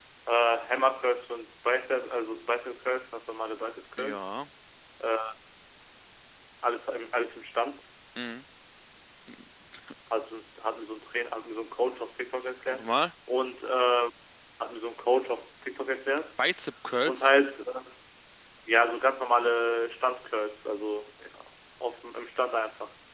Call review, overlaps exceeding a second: none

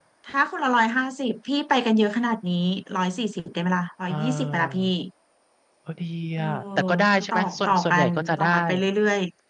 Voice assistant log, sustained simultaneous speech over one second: present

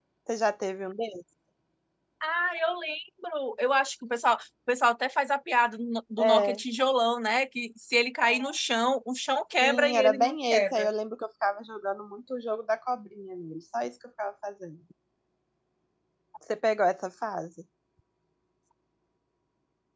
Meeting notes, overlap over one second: present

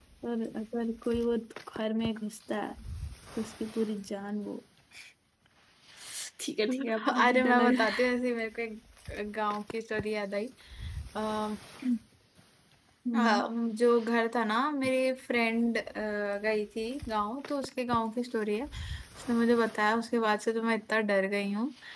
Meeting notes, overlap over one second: present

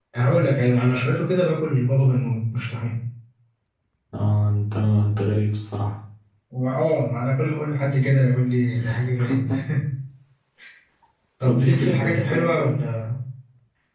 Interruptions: present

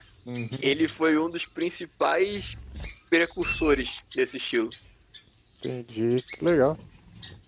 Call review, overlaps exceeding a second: none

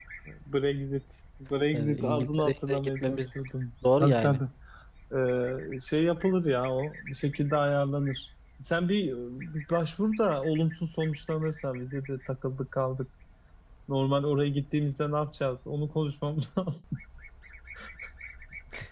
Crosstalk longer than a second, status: present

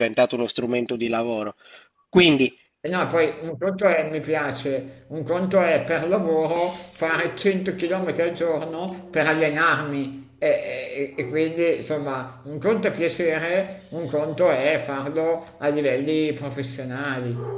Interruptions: none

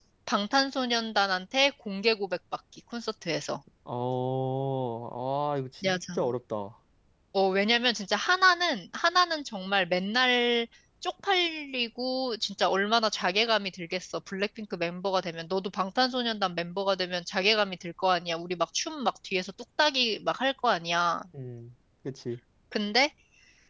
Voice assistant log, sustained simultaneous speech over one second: none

